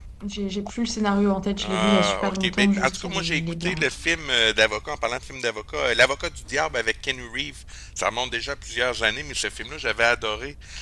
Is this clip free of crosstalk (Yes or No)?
No